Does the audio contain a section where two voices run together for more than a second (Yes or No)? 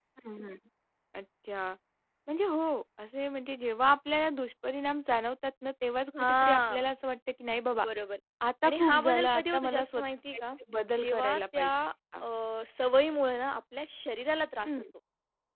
Yes